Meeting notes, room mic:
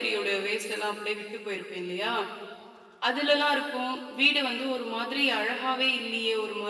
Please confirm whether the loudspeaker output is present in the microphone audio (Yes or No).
Yes